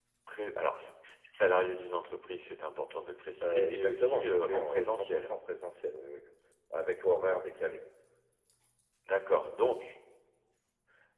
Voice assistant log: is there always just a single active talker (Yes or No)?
No